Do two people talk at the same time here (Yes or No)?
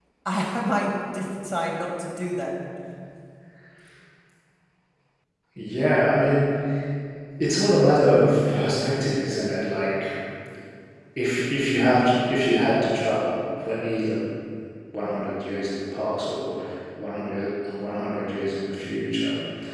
No